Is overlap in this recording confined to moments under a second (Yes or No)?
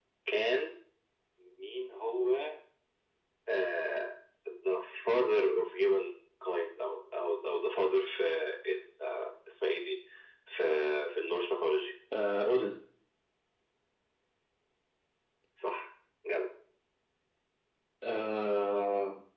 Yes